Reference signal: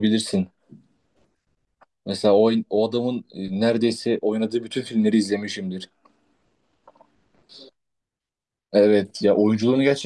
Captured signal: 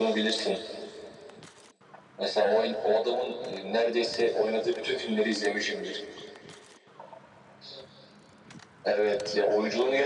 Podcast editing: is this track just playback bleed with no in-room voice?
Yes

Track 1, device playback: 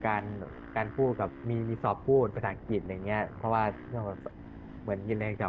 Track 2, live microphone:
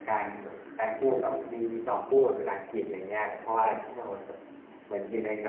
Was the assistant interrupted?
No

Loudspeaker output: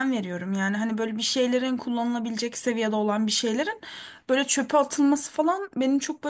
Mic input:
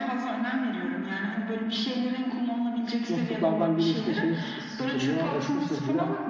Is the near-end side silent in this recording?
No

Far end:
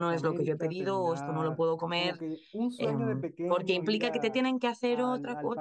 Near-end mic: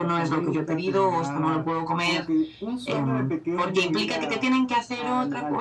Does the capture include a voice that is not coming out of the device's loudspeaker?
No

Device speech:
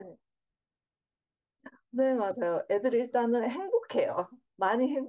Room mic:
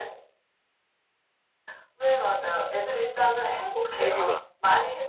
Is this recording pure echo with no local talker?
No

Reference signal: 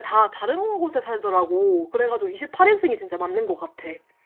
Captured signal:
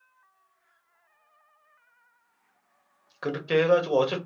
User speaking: Yes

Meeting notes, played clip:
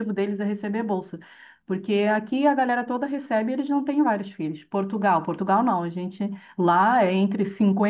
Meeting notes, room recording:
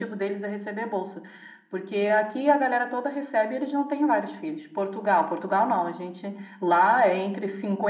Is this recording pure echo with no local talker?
Yes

